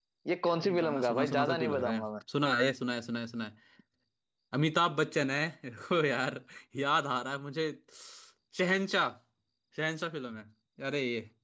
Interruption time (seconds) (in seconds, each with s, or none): 0.5 s